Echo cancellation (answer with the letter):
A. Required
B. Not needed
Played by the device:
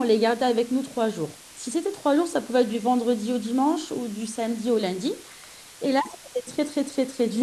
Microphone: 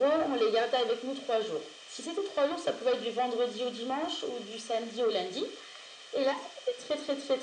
A